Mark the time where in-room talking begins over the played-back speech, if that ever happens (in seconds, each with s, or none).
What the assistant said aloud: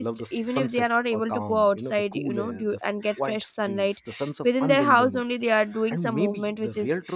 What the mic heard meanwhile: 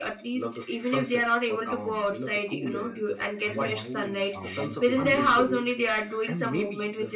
3.4 s